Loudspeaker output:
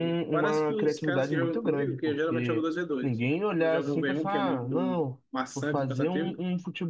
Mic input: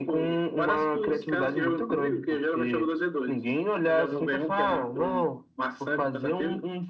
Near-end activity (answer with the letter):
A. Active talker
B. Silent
B